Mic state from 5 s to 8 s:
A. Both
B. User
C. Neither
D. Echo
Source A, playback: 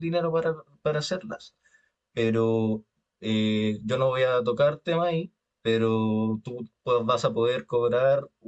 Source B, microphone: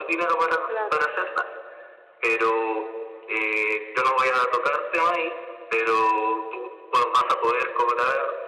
D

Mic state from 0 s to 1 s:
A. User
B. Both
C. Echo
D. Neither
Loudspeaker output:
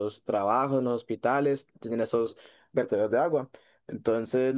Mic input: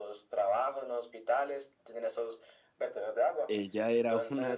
C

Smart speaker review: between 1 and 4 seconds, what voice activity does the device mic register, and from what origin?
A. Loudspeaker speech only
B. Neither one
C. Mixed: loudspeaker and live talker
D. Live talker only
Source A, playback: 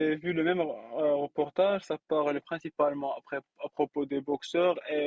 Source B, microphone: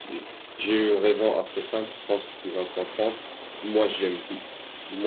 D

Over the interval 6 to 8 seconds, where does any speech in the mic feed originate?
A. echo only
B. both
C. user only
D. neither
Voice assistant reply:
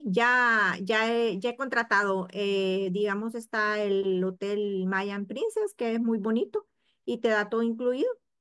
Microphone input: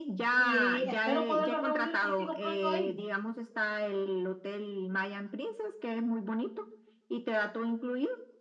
A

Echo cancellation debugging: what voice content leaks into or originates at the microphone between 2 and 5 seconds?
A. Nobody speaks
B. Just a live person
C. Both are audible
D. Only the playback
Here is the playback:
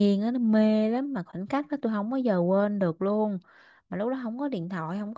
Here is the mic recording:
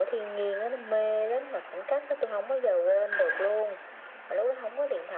D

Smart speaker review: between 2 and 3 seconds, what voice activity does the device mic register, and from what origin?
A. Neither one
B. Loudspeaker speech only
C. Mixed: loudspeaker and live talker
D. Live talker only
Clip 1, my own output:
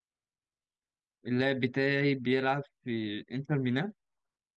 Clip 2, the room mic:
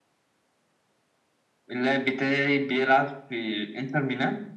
B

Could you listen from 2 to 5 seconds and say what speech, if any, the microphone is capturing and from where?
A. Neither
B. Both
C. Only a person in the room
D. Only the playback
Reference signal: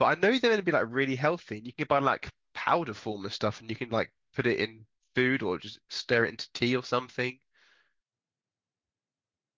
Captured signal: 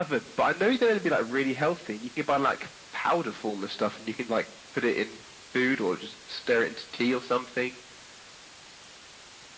D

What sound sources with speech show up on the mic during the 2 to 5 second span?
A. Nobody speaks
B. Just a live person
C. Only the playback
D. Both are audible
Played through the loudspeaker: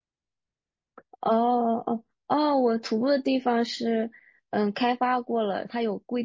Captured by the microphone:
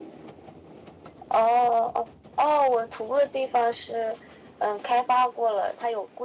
C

